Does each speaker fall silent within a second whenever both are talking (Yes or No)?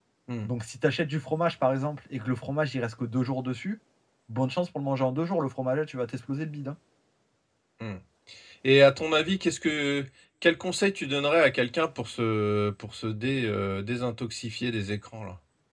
Yes